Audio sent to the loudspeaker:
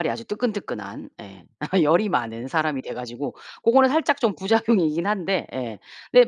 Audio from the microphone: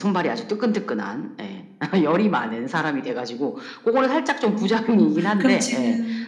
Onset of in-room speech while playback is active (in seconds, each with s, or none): 4.5 s